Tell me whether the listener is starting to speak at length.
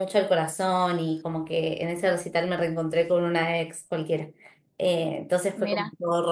No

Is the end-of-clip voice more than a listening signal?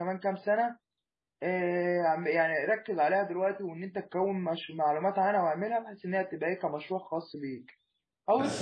Yes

